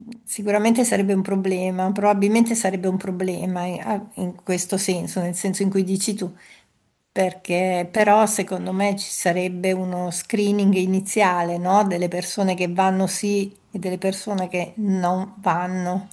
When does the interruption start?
none

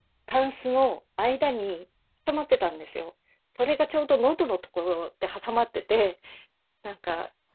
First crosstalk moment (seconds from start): none

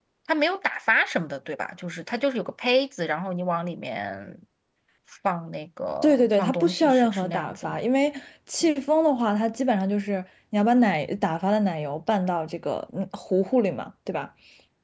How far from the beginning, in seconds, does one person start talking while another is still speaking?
6.0 s

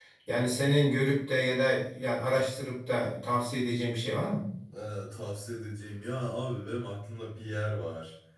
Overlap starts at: none

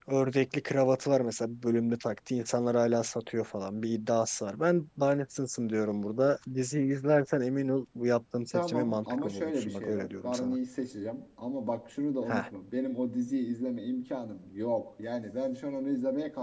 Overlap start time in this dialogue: 8.5 s

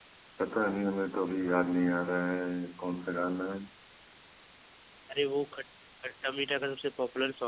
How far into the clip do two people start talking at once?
none

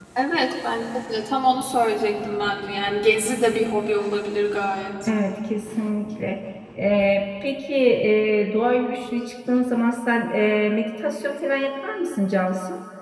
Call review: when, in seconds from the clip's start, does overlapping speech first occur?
none

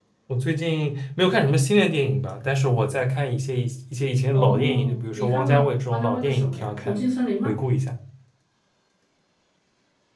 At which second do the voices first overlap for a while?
4.3 s

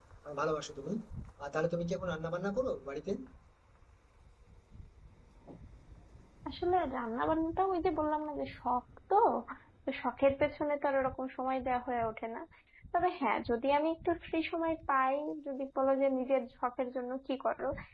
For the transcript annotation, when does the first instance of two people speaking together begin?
none

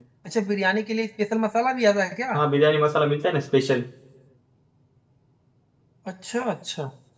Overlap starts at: none

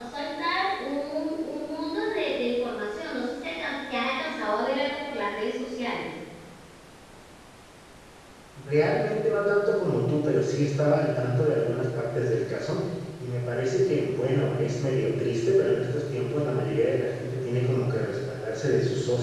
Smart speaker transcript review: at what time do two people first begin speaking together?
none

